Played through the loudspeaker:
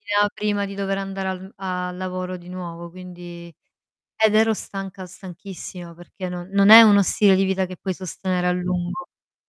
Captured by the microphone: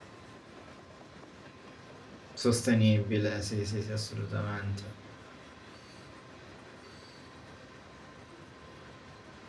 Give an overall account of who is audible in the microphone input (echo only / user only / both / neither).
user only